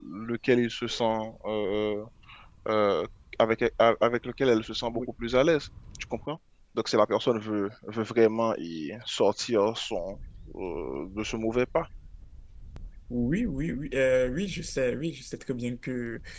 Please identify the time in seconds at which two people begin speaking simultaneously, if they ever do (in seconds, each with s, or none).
none